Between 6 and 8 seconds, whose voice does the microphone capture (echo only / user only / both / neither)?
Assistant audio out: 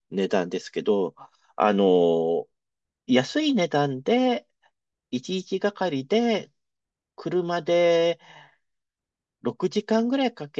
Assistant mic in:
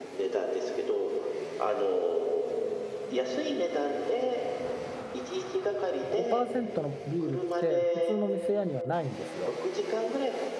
both